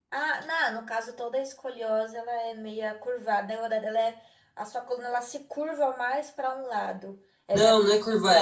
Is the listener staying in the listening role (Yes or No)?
No